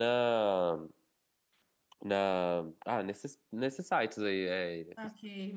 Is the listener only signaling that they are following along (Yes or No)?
No